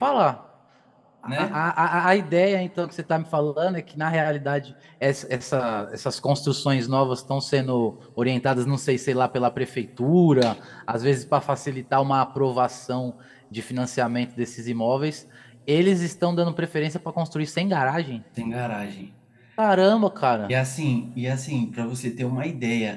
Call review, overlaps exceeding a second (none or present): none